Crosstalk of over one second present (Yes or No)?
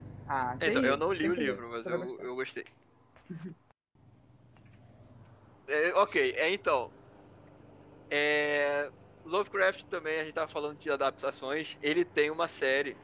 Yes